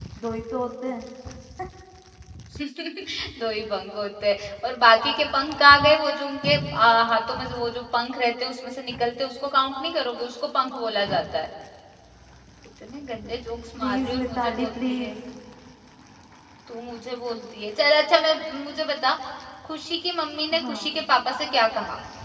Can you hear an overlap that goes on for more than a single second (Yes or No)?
Yes